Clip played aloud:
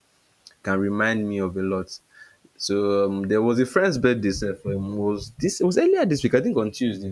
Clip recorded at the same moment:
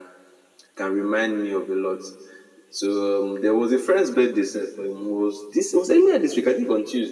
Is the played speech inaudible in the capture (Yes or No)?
No